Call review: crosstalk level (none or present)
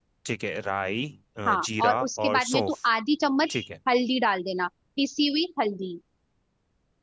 present